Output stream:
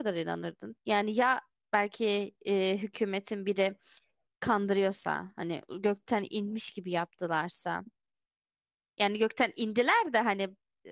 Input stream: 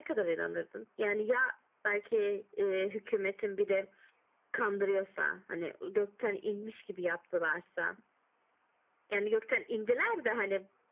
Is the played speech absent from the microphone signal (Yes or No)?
No